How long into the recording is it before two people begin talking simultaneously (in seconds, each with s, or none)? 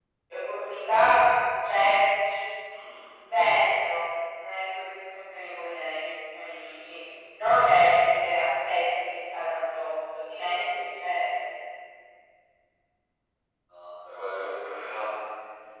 none